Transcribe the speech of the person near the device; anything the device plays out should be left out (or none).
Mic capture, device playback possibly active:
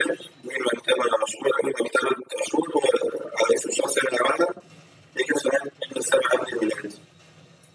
none